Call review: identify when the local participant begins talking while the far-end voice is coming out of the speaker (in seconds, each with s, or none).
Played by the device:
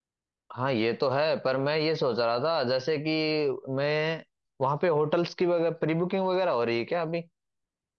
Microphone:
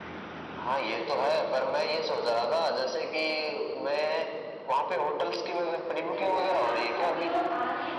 6.1 s